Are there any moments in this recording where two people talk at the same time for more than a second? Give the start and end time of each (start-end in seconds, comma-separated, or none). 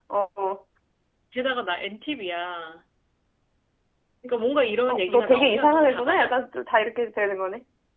4.9-6.3